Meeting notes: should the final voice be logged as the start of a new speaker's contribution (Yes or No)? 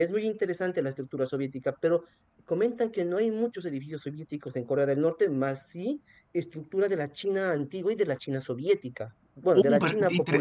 Yes